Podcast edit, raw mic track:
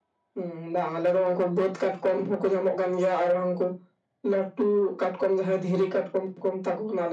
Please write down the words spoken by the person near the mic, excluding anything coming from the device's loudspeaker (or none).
none